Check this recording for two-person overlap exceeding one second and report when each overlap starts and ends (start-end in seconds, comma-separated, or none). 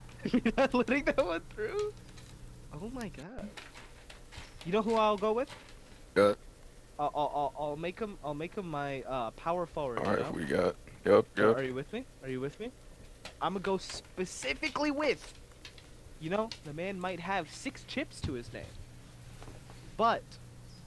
none